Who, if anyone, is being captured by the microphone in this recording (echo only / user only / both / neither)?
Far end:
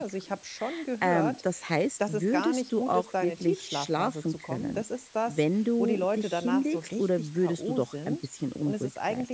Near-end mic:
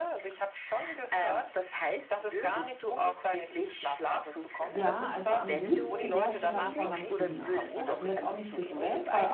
both